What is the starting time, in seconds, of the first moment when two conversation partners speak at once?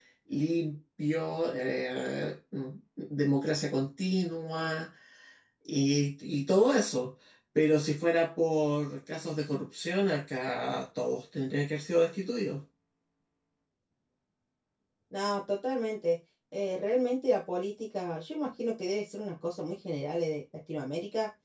none

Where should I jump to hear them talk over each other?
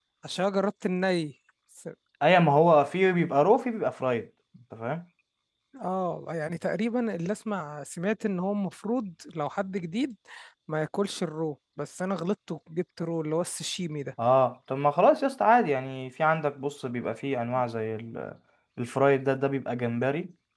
none

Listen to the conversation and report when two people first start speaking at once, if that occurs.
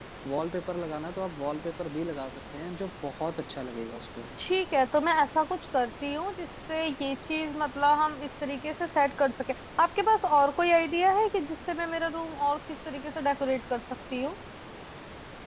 none

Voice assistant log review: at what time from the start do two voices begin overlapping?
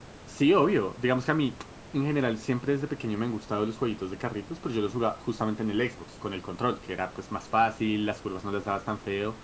none

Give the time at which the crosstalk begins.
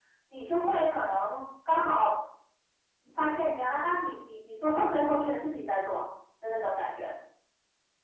none

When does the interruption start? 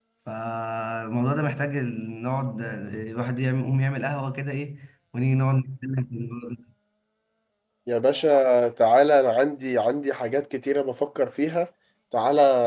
none

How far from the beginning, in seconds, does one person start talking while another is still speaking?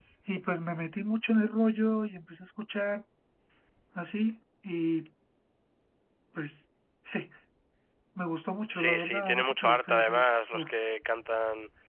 8.7 s

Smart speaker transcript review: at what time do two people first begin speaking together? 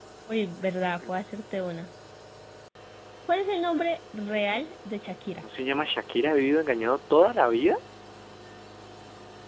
none

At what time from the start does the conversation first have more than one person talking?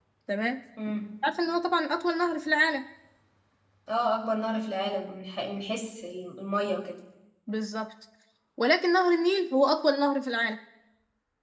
none

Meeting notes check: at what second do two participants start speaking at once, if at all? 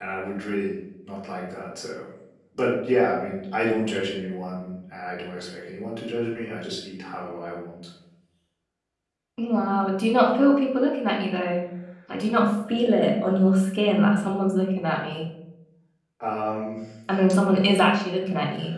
none

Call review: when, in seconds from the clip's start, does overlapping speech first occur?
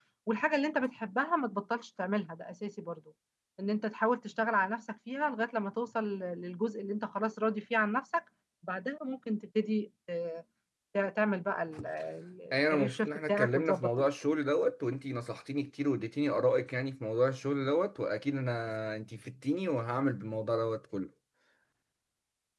12.5 s

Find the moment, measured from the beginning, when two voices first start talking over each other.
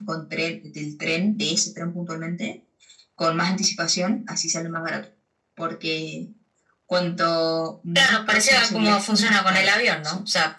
8.0 s

